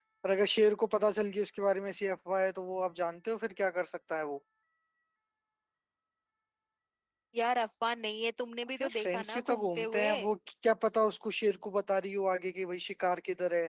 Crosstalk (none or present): present